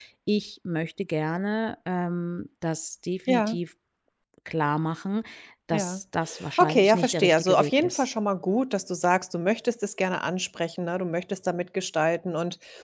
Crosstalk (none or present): present